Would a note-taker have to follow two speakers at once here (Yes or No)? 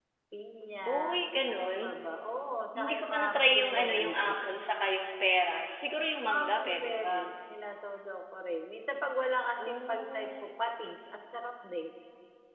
Yes